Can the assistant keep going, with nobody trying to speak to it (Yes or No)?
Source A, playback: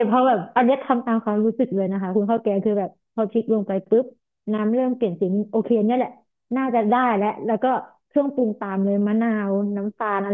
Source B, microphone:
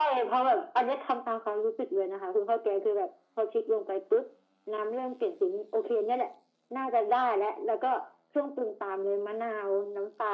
Yes